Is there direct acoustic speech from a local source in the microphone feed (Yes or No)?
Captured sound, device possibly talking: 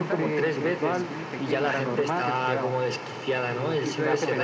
Yes